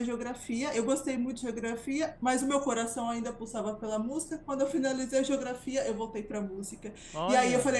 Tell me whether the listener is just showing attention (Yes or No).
Yes